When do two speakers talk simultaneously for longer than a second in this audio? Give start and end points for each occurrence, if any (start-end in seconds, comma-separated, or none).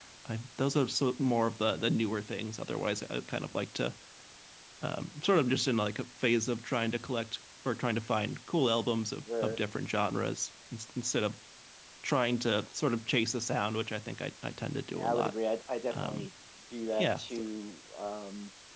none